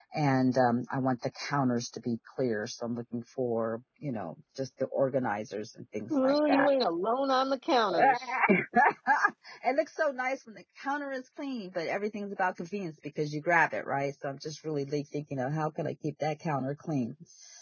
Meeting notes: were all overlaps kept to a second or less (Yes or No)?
Yes